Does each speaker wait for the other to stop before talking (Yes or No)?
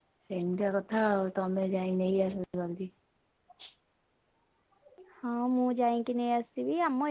Yes